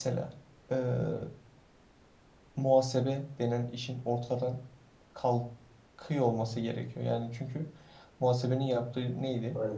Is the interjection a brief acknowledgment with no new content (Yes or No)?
Yes